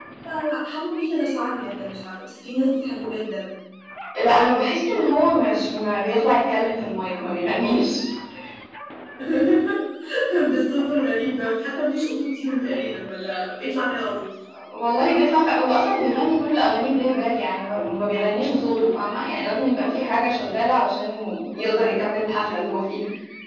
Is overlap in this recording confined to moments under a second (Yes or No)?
Yes